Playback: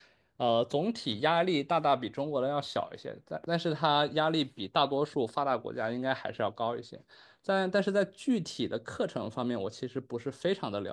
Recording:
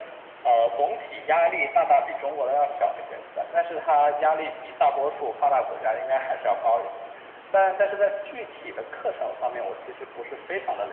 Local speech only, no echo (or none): none